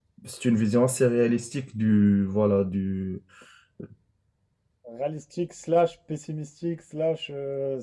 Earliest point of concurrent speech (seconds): none

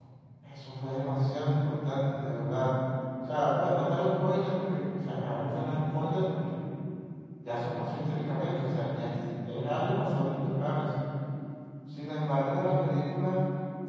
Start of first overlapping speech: none

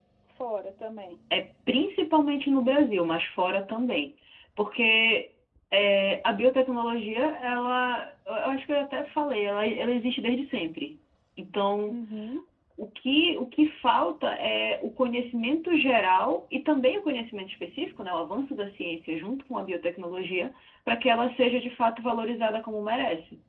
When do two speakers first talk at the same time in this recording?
none

